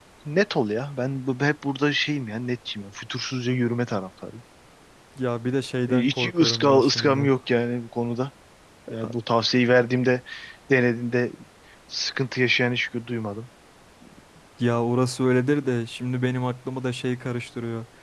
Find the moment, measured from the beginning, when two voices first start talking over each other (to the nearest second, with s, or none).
6 s